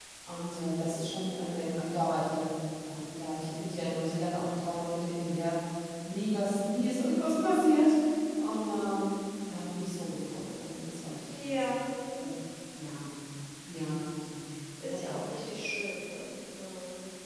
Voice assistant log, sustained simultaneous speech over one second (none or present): none